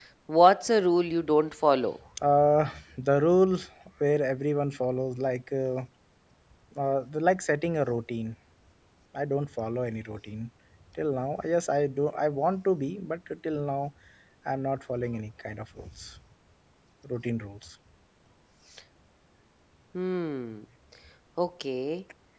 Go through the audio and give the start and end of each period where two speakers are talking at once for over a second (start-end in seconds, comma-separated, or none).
none